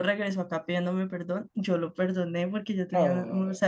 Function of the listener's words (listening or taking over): listening